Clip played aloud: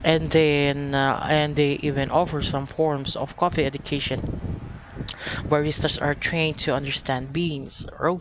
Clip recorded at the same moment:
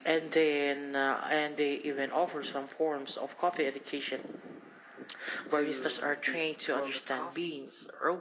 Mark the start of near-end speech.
5.6 s

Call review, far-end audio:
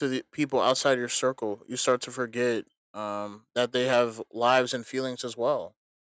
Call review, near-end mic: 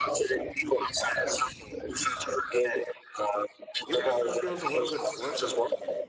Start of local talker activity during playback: 3.8 s

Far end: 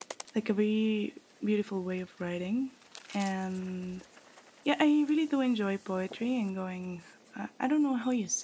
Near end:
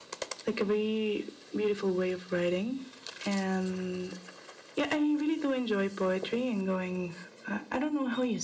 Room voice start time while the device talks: none

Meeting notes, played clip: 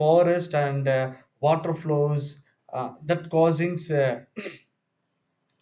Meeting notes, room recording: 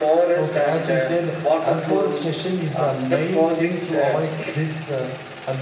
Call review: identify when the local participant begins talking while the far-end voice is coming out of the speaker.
0.4 s

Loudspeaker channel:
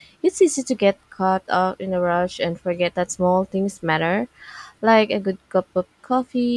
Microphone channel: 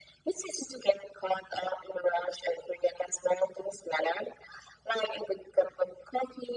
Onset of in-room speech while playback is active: none

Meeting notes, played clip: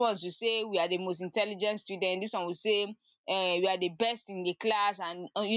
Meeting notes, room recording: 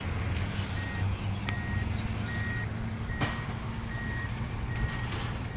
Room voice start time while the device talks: none

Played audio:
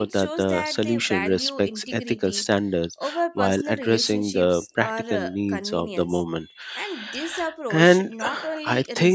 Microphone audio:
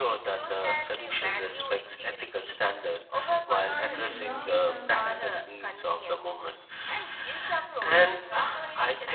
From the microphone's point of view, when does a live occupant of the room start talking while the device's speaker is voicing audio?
3.6 s

